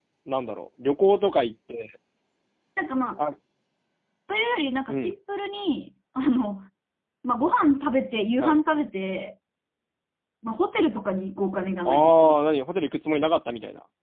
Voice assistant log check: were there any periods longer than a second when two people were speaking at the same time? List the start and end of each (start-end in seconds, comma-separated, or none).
none